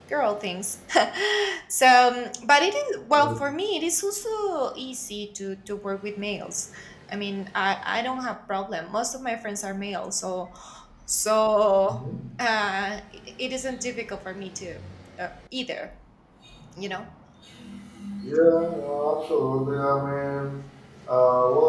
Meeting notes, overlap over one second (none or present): none